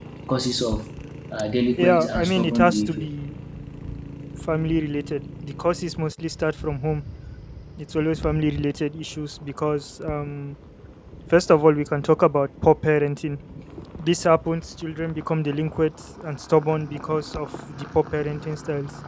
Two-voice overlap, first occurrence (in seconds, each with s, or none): 1.8 s